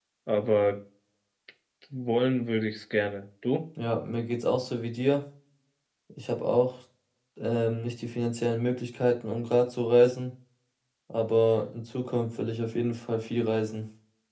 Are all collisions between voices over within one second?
Yes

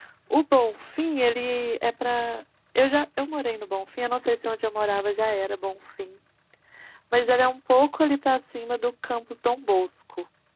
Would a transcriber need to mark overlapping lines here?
No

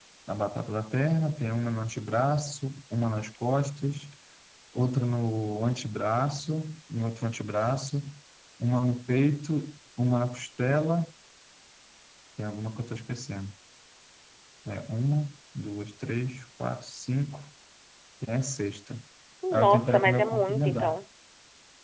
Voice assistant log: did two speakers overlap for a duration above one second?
Yes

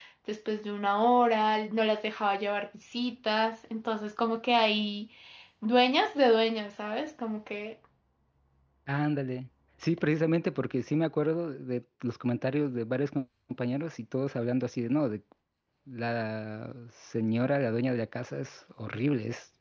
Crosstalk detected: No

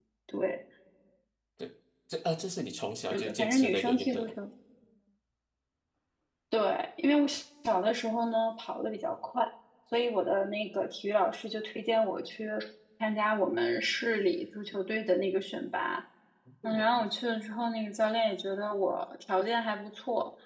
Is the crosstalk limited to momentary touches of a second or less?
No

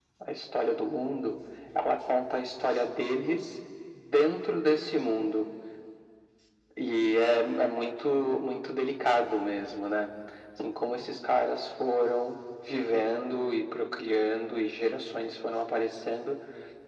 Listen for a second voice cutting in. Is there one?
No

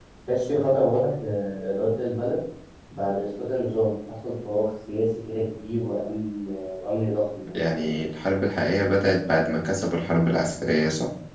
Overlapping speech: No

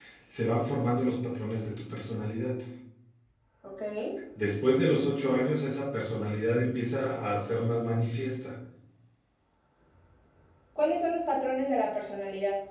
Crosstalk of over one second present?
No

